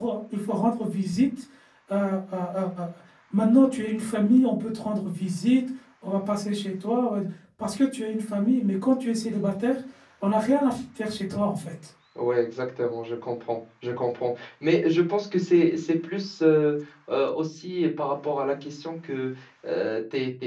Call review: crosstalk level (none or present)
none